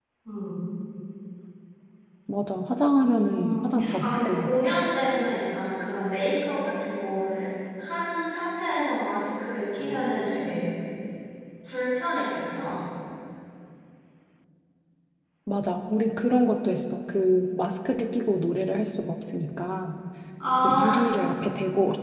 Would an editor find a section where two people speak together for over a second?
Yes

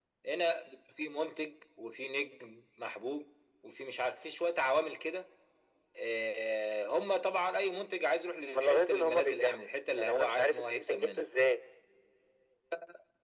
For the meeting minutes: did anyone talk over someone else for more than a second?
Yes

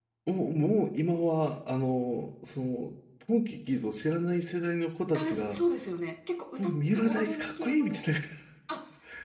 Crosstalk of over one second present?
Yes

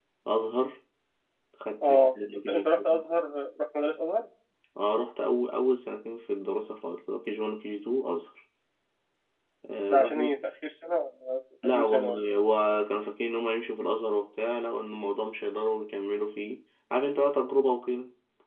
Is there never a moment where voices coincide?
No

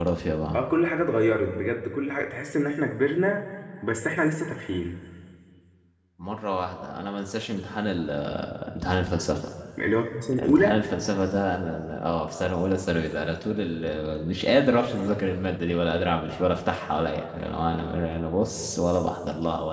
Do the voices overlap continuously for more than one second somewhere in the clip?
No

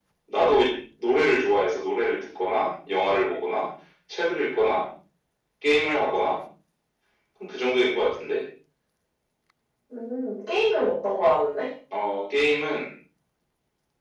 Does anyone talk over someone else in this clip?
No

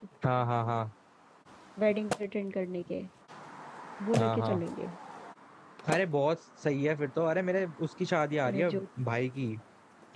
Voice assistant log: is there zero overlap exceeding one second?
Yes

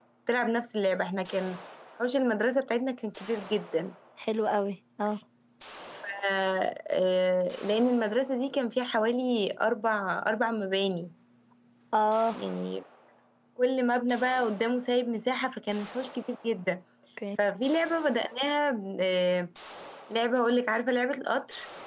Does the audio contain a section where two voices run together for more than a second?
No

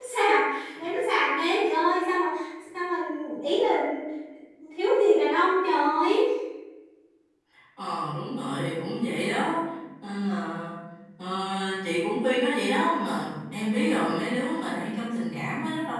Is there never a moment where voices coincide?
Yes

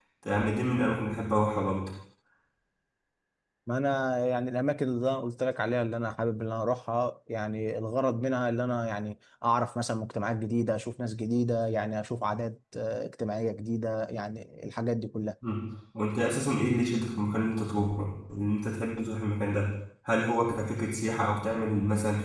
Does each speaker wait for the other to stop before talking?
Yes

